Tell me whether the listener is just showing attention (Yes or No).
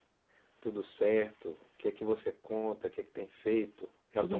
No